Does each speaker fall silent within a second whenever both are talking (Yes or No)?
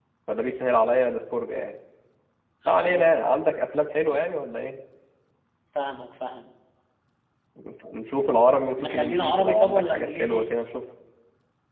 No